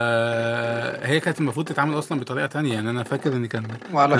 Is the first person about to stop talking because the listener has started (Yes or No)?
No